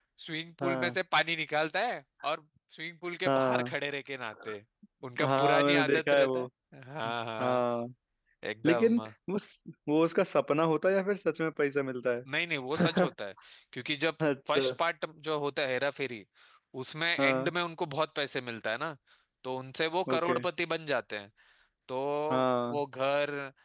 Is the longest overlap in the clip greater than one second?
Yes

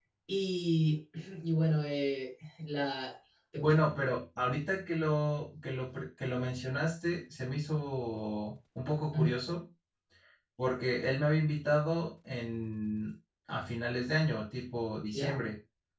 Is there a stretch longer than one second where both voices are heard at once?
No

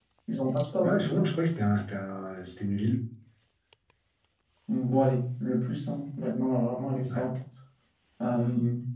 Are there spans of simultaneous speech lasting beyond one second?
No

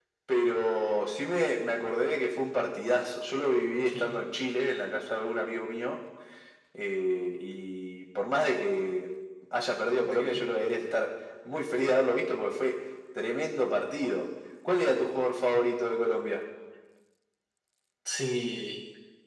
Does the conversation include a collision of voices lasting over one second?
No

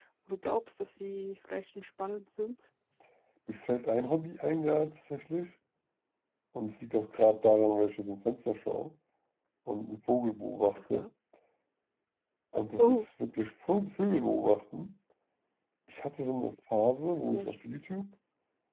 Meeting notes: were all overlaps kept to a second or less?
Yes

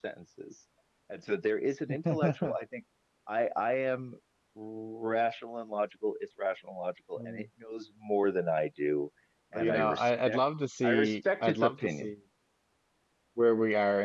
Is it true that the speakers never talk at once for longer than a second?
No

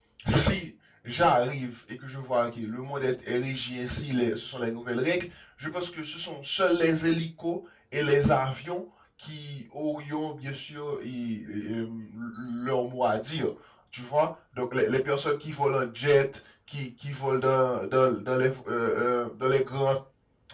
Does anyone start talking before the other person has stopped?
No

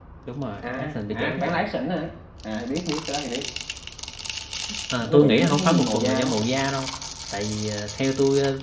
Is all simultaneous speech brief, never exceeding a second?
No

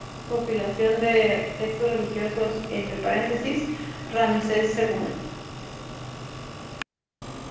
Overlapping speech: No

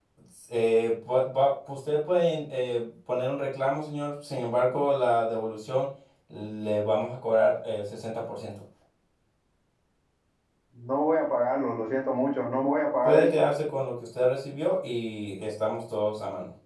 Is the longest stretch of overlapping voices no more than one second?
Yes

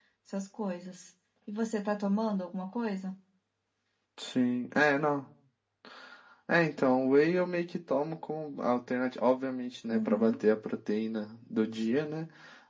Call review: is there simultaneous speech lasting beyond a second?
No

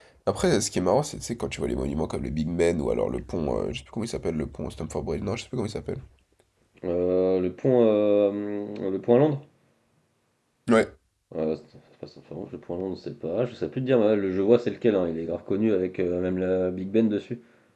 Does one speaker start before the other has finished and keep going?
No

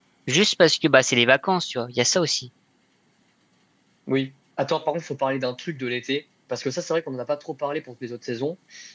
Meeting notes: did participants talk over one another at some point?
No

